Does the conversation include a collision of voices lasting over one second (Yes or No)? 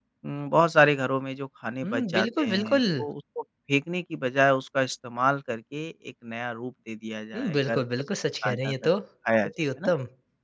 Yes